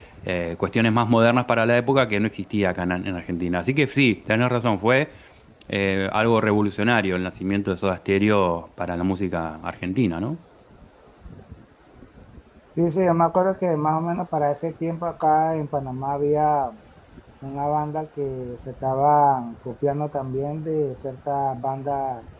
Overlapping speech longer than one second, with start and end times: none

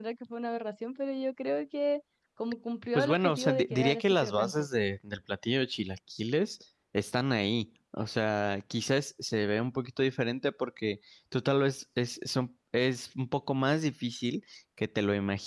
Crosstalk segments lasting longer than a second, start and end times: 2.9-4.7

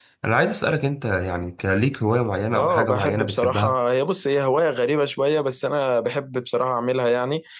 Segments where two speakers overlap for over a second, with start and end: 2.5-3.8

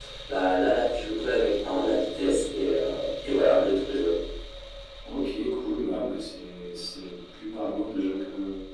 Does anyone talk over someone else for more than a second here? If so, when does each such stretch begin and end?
none

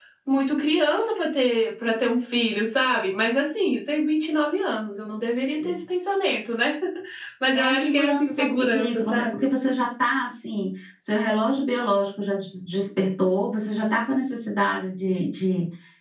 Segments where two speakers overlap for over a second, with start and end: 7.5-9.4

